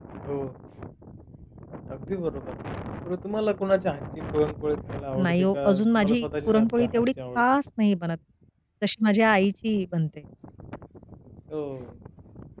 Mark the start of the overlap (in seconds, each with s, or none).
5.2 s